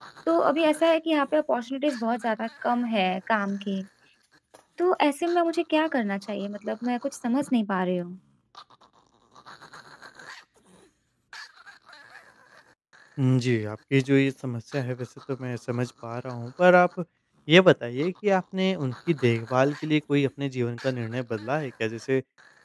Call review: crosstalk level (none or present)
none